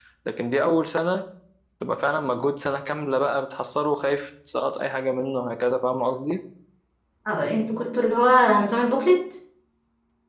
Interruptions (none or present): none